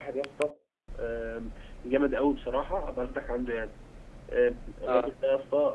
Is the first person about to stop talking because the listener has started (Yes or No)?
No